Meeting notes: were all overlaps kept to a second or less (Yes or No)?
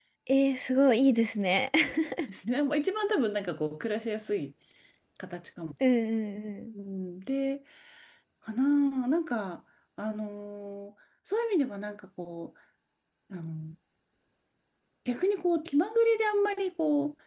Yes